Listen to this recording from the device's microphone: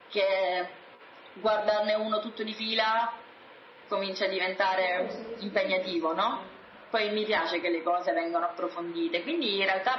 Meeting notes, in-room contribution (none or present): present